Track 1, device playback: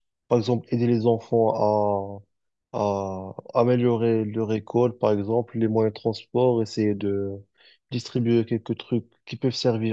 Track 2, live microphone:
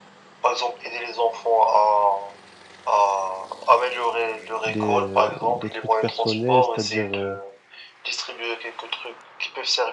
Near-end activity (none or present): present